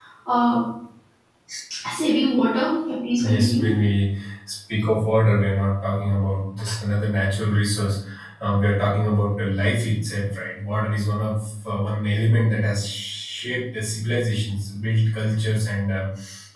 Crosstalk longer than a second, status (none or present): none